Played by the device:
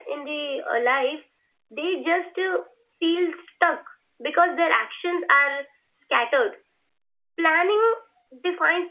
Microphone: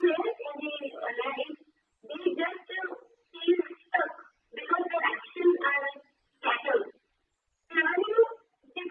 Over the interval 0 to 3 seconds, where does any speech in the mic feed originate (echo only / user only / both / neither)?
echo only